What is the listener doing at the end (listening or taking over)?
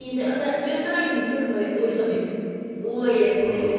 listening